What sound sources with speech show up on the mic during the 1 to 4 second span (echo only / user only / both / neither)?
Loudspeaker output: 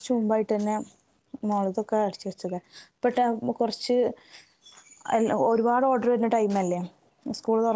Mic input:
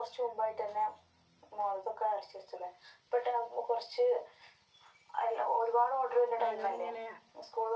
echo only